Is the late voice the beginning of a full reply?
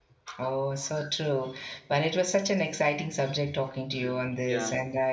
No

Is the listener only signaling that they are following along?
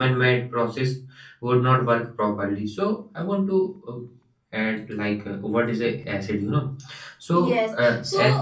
No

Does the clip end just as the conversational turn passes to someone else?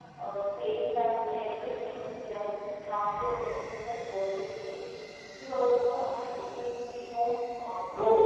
Yes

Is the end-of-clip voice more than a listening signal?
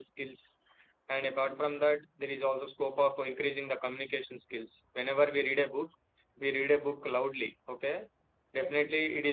No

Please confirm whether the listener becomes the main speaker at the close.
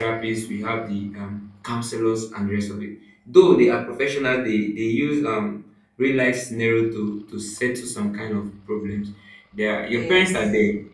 No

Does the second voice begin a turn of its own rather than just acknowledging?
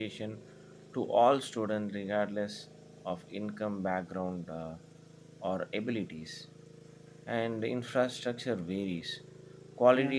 No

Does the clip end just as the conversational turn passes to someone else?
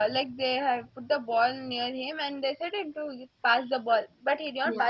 No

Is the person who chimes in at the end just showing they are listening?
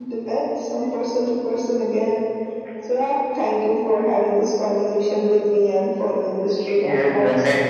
No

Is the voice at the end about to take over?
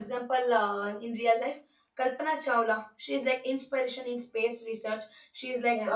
No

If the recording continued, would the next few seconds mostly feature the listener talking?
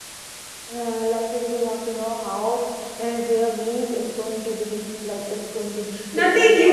Yes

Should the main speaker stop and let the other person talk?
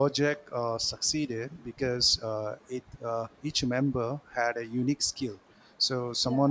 No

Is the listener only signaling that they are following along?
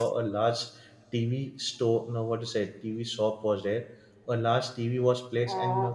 No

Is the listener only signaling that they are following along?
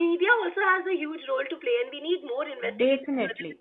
Yes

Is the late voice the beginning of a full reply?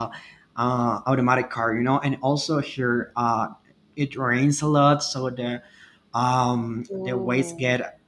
No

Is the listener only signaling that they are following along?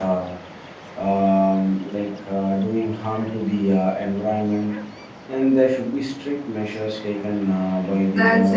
No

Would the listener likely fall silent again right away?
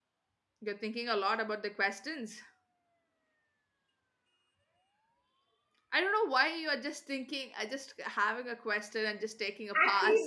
No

